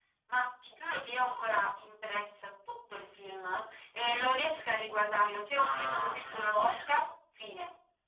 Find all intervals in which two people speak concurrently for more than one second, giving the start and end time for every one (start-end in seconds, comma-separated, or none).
5.5-6.9